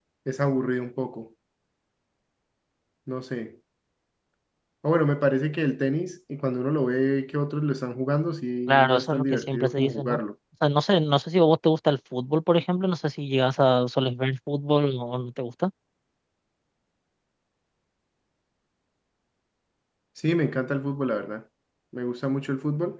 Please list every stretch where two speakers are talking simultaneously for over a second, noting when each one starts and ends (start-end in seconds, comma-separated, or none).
8.7-10.2